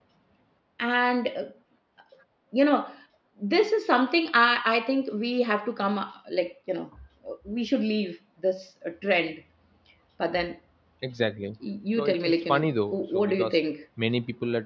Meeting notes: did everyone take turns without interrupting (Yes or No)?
No